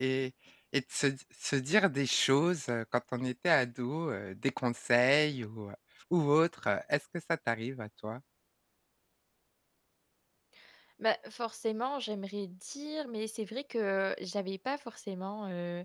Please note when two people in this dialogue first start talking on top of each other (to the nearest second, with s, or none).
none